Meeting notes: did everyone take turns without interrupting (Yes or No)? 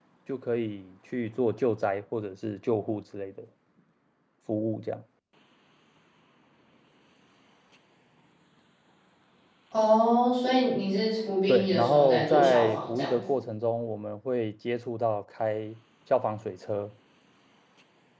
No